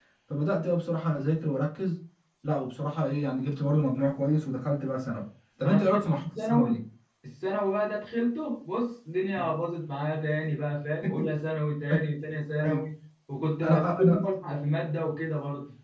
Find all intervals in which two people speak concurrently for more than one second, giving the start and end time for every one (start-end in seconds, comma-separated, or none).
5.6-6.8